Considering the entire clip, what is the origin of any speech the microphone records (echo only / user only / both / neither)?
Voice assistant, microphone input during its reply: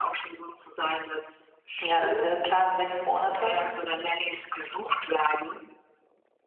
both